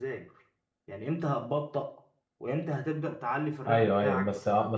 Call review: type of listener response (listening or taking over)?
taking over